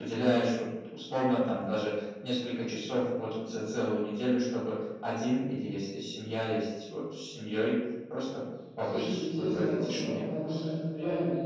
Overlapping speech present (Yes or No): Yes